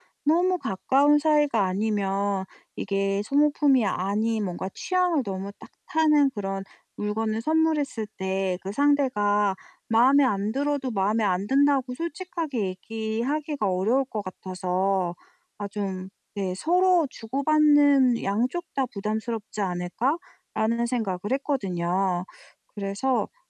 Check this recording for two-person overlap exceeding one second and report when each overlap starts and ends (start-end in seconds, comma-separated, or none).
none